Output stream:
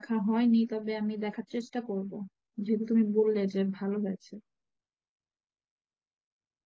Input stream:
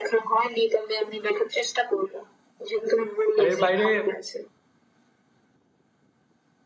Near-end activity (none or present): present